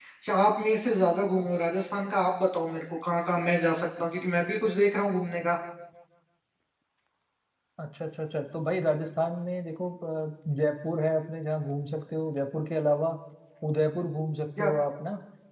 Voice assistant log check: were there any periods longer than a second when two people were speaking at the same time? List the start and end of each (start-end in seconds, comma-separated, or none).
none